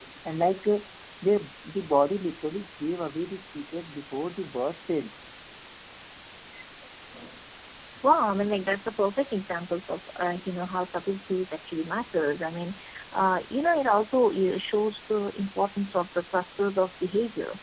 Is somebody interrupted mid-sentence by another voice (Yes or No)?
No